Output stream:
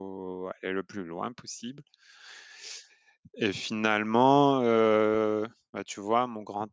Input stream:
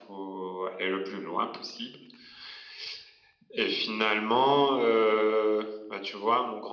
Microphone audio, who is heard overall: echo only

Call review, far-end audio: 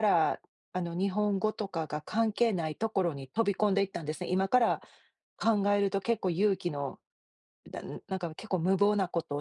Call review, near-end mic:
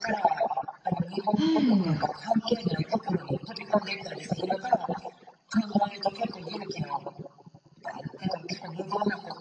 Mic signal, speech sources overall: both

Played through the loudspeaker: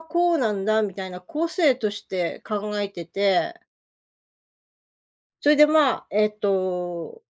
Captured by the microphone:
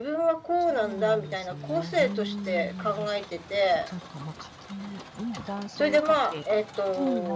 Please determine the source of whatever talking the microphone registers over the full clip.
both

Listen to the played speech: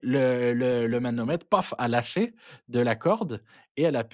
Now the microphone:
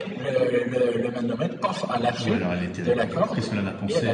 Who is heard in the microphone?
both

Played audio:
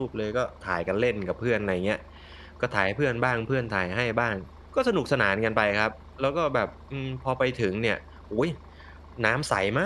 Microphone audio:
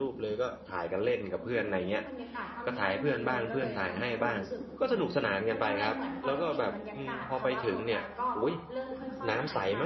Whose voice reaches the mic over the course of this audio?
both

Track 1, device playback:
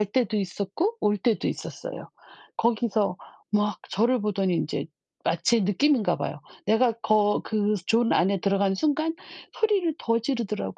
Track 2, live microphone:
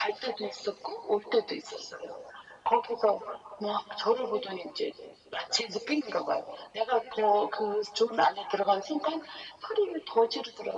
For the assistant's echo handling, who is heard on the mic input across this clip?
echo only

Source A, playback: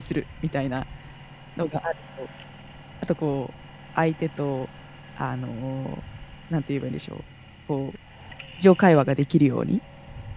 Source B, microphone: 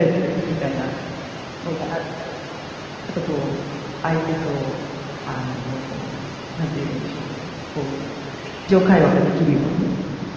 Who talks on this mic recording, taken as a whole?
echo only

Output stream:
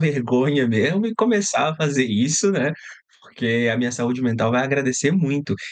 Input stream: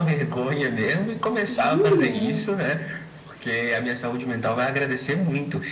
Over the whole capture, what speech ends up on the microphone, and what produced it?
both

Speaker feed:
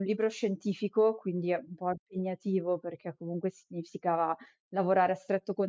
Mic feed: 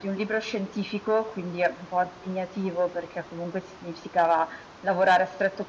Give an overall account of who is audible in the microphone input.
echo only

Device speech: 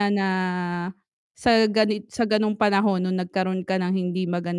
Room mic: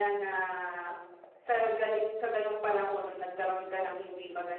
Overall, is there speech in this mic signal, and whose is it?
echo only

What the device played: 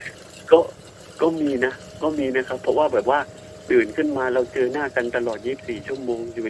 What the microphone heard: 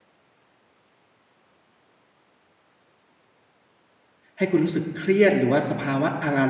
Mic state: user only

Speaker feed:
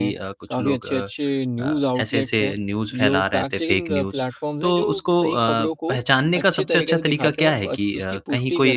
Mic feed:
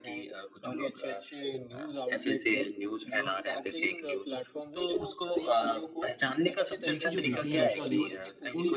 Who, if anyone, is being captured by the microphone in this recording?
both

